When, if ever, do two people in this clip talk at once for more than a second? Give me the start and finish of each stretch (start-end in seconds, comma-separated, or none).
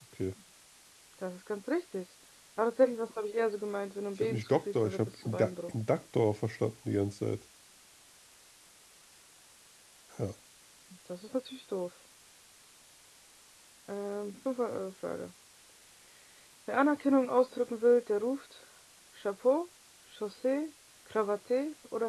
4.2-5.7